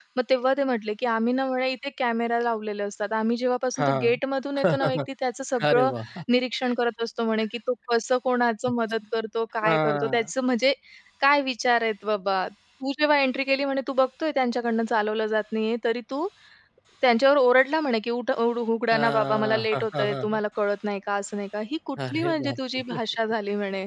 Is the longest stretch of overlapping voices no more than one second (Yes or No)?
No